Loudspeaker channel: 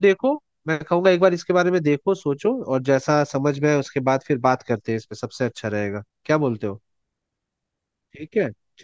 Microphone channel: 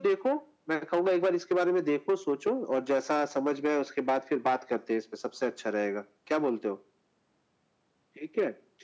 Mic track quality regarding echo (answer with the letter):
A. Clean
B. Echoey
B